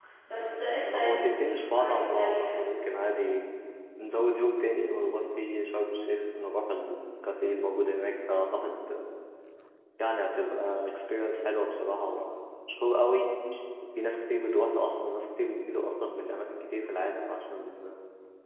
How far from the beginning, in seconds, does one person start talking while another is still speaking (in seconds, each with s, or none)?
0.8 s